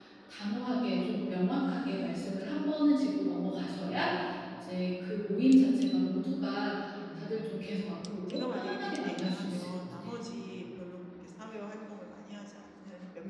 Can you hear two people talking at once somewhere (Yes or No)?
Yes